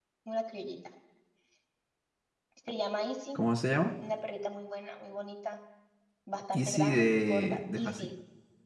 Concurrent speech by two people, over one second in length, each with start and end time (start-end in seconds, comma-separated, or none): 6.5-8.1